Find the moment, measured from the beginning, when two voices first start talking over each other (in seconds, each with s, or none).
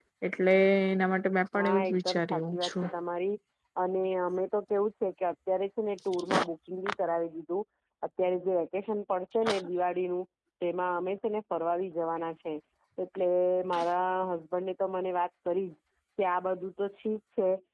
1.6 s